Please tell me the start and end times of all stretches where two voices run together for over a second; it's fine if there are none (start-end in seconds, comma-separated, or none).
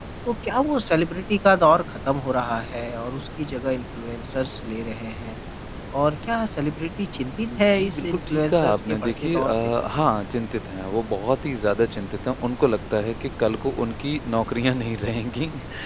7.6-9.7